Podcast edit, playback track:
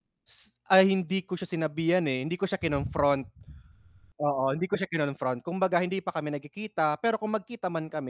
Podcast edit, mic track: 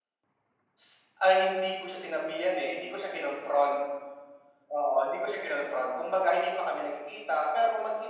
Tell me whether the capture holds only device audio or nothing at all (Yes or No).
Yes